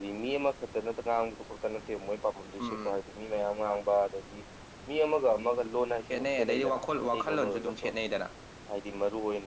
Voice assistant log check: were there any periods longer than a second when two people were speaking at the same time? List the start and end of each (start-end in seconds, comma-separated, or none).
6.1-7.9